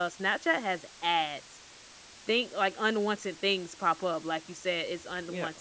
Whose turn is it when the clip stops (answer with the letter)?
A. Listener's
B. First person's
B